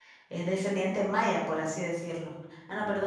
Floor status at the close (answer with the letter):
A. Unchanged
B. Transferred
A